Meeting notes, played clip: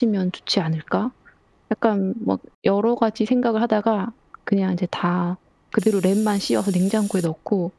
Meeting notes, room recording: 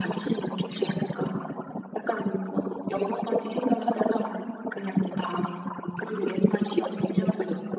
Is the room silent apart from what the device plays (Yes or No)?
Yes